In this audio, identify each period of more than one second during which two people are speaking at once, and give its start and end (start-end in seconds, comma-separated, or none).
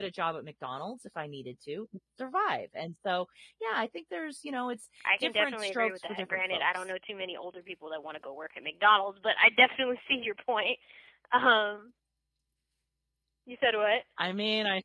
5.2-6.9